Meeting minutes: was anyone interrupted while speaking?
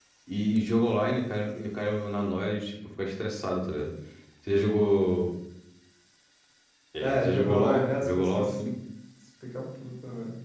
Yes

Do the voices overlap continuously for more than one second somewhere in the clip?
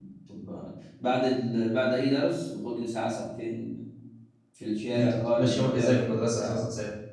Yes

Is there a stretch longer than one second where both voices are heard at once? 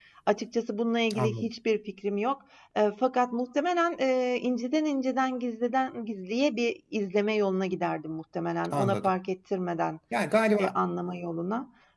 No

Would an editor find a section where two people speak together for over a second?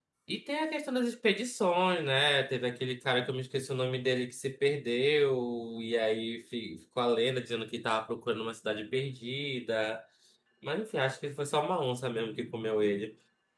No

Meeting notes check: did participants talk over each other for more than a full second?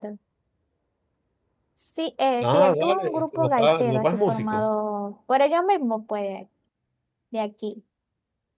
Yes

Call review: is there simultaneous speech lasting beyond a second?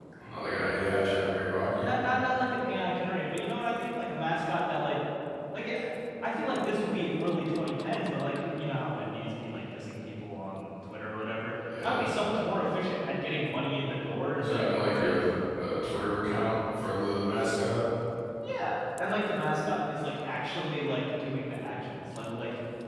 No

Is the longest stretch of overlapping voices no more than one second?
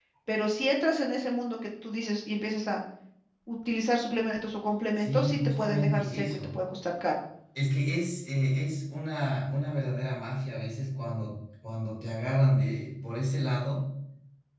No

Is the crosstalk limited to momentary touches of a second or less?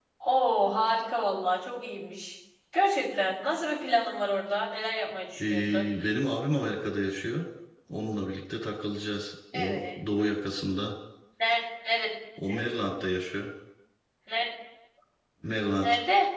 Yes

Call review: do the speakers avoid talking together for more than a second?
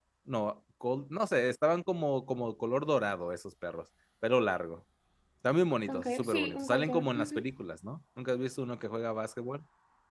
No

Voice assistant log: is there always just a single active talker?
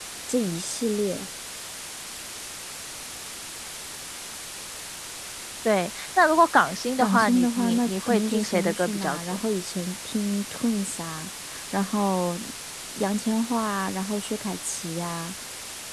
No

